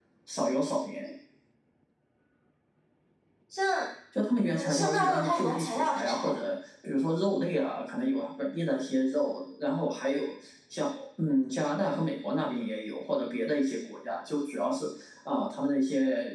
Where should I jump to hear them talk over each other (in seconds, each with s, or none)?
4.5 s